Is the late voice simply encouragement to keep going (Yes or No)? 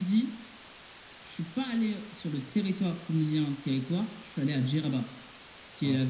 Yes